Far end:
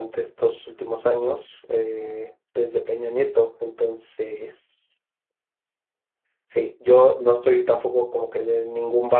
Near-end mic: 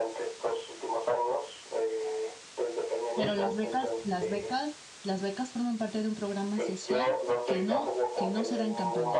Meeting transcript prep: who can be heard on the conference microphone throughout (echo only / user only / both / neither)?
both